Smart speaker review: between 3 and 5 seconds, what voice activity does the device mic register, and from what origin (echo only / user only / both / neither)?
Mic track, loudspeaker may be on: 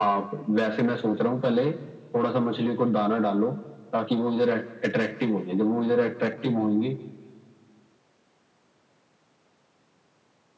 echo only